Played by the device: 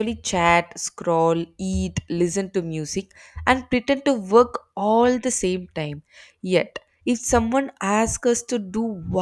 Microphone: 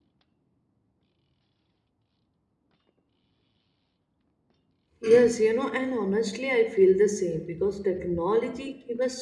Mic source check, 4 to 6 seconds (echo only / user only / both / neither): user only